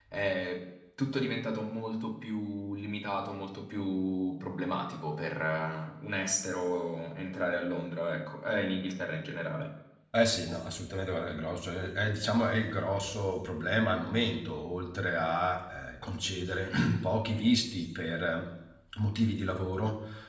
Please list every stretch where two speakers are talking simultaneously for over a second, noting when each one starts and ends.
none

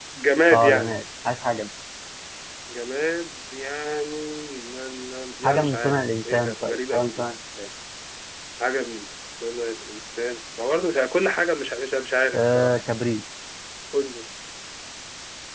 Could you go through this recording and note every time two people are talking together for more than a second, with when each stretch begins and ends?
5.4-7.2

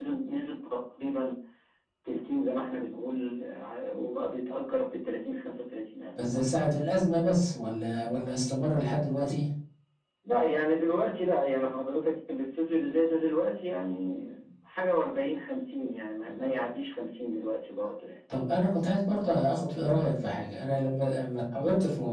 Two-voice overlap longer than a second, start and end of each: none

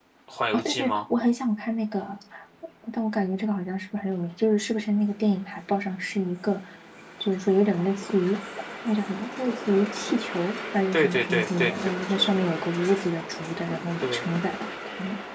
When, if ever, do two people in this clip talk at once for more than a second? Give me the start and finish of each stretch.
10.9-12.2

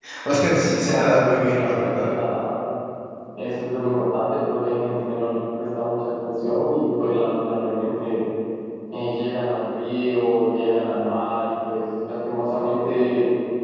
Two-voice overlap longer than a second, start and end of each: 0.8-2.0

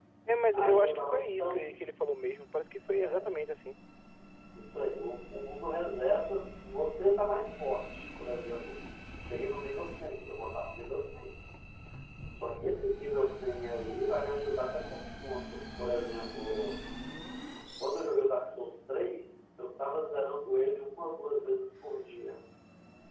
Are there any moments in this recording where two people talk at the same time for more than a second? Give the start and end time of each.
0.5-1.8

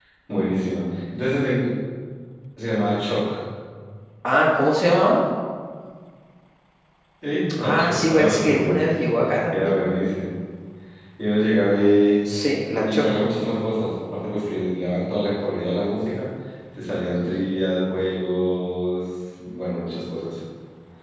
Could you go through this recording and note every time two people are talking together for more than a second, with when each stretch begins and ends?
7.6-8.8

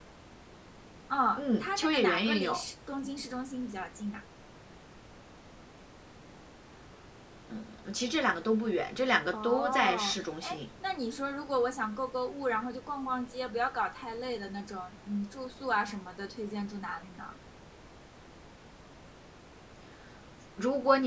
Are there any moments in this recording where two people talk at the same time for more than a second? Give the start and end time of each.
1.4-2.6, 9.3-10.6

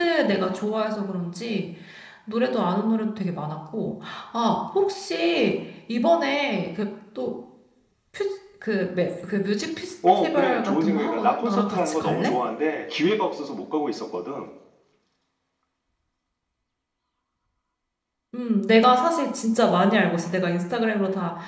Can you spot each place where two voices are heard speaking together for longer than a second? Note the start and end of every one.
10.2-12.3

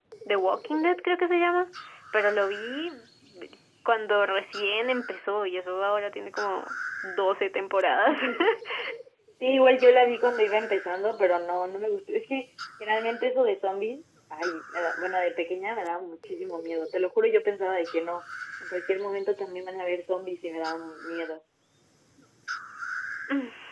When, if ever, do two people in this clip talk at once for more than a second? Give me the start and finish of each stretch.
none

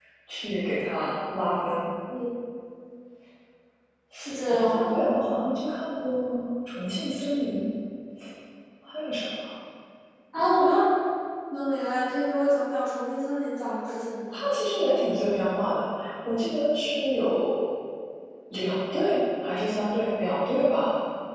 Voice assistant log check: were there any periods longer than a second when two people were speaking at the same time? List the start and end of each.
none

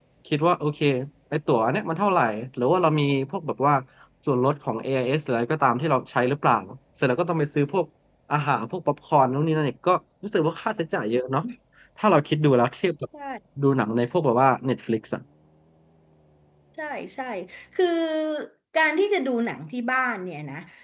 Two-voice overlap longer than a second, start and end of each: none

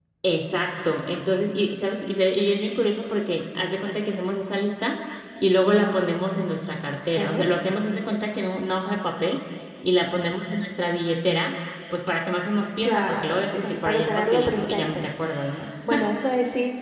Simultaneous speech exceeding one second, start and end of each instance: 12.8-15.1

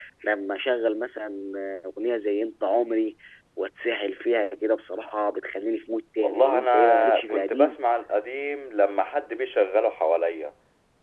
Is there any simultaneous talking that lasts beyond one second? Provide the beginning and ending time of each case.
6.2-7.8

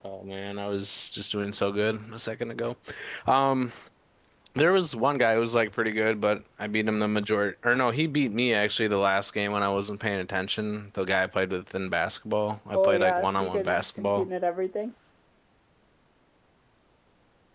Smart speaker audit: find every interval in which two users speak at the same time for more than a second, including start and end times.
12.7-14.3

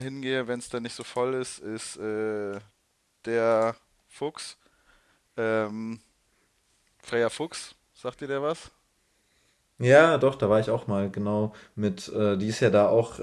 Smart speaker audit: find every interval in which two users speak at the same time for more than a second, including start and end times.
none

